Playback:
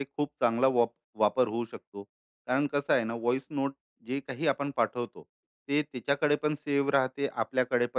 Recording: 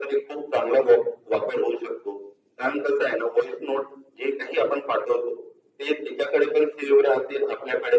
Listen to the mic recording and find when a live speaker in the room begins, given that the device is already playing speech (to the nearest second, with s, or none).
none